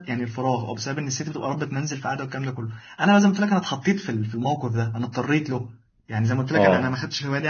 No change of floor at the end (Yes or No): Yes